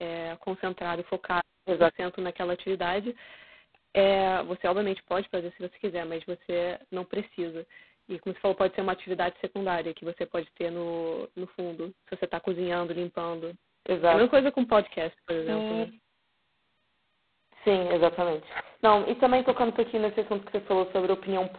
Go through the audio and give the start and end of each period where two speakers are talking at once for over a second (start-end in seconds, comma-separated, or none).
none